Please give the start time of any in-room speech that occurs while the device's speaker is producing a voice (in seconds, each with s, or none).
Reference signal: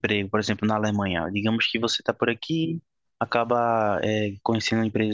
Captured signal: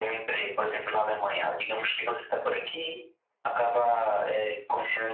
none